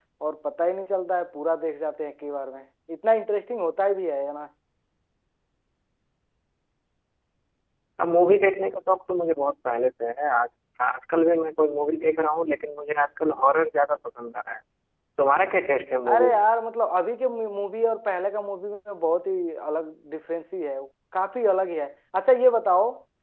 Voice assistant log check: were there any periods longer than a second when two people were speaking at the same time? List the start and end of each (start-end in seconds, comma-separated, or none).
none